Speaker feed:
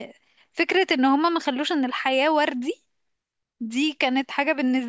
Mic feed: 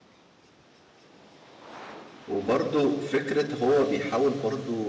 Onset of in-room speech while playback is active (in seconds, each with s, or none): 2.3 s